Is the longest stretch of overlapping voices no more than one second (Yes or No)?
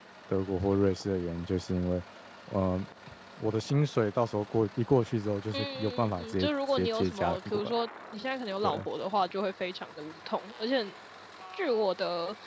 No